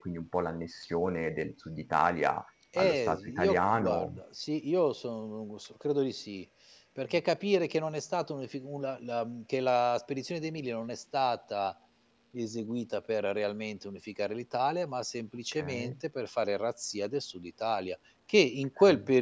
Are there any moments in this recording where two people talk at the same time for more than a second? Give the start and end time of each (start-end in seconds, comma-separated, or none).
2.8-4.2